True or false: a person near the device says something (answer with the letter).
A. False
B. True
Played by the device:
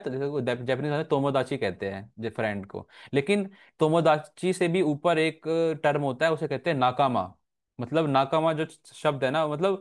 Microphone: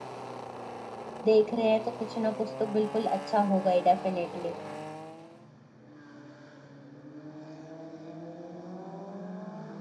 B